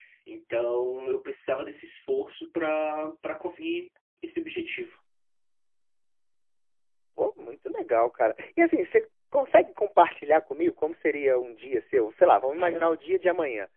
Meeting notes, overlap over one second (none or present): none